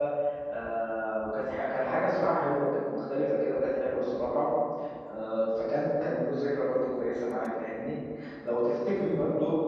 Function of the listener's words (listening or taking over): listening